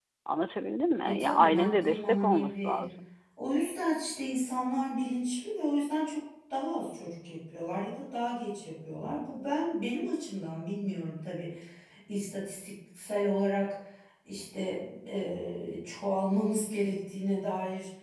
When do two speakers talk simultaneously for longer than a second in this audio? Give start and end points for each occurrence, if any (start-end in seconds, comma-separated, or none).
1.0-2.8